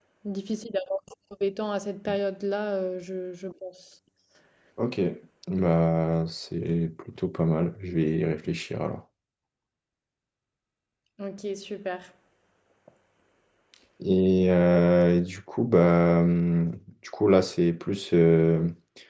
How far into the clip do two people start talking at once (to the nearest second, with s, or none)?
none